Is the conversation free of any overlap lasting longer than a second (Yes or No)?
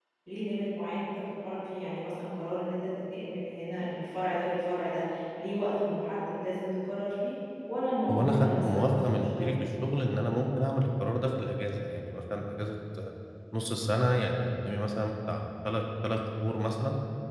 No